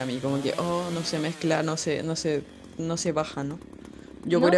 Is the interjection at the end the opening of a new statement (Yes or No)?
No